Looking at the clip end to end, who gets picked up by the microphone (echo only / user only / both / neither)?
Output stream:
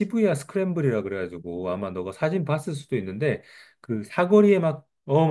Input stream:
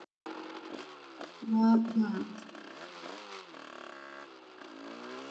user only